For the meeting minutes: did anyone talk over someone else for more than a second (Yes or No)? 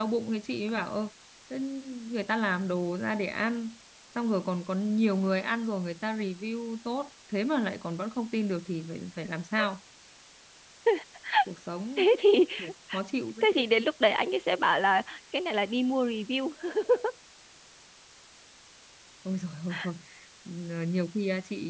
No